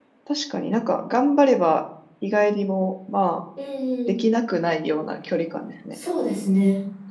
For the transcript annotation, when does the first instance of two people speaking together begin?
none

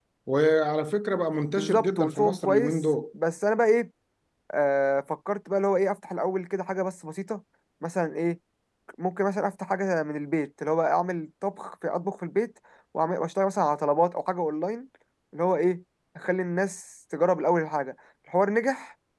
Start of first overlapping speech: 1.5 s

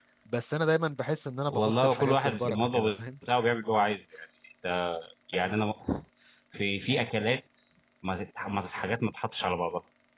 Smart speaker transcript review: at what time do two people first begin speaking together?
1.5 s

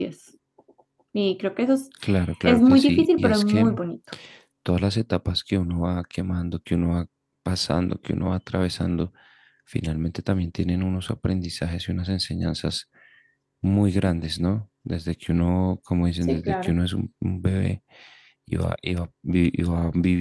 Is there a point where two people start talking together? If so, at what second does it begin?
2.5 s

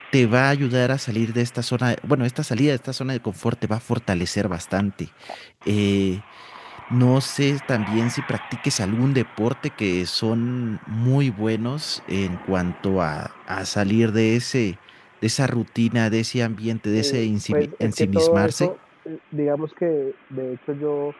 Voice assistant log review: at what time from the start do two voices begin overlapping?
17.0 s

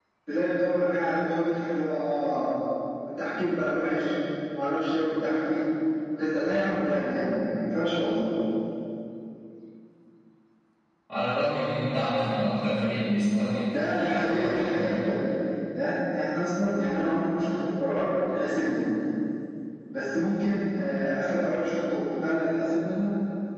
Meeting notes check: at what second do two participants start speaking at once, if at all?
13.7 s

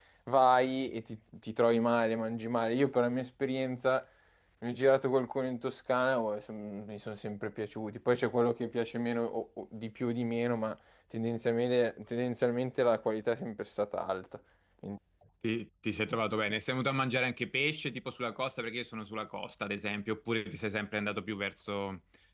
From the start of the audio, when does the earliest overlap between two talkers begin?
none

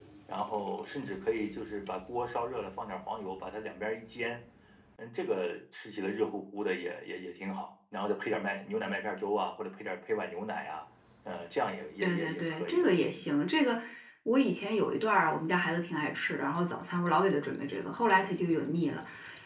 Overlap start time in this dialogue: 12.0 s

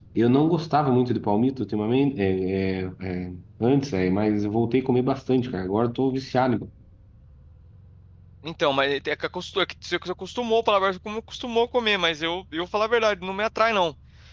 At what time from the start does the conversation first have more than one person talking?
none

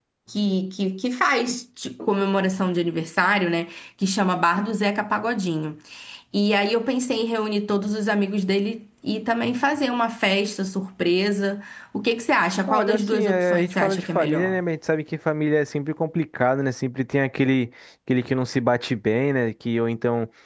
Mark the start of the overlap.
12.7 s

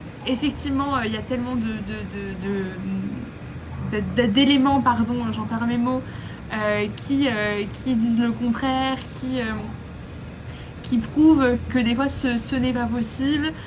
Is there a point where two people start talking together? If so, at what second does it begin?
none

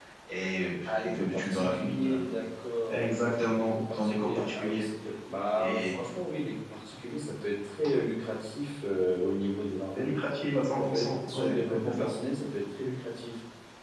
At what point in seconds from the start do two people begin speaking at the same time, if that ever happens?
0.8 s

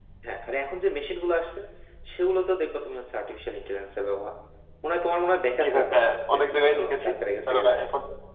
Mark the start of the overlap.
5.6 s

